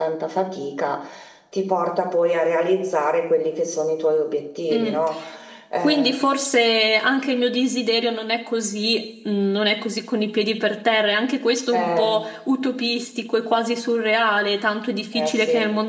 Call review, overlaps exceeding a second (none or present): none